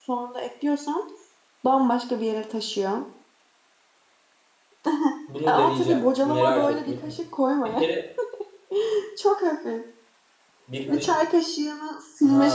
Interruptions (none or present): present